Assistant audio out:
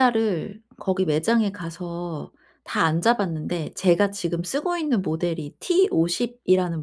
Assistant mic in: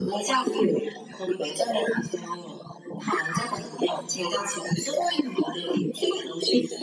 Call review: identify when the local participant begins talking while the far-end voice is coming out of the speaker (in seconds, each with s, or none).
none